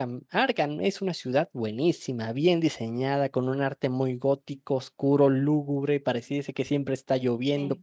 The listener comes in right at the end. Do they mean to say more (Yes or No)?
No